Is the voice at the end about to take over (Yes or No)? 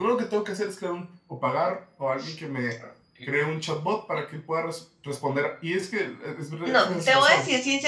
Yes